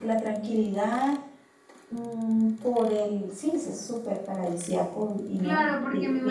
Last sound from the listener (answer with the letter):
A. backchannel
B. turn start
B